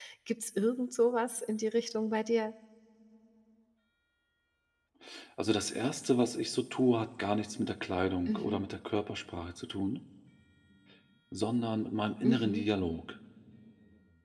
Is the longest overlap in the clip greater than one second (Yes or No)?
No